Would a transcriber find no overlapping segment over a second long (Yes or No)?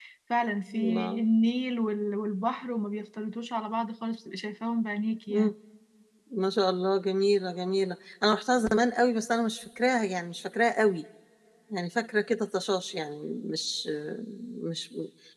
Yes